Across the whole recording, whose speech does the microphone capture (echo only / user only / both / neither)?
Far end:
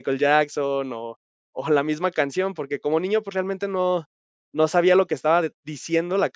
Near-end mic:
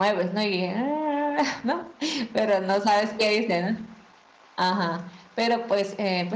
user only